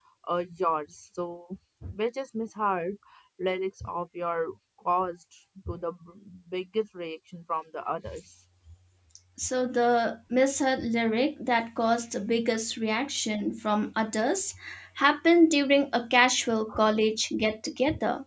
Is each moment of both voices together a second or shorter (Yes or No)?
Yes